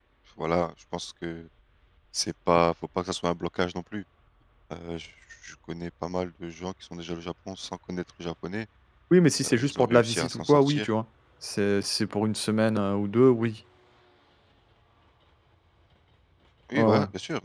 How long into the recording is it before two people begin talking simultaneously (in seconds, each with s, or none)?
9.4 s